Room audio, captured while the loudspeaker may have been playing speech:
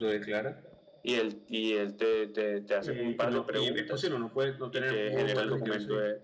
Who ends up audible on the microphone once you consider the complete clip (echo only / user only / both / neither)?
both